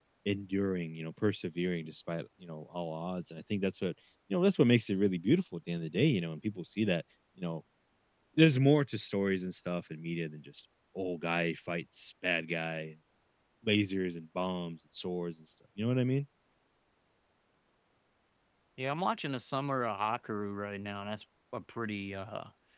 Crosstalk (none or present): none